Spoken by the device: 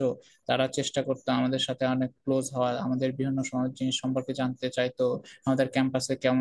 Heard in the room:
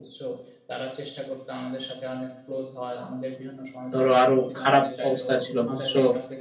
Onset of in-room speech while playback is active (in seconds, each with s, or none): 3.9 s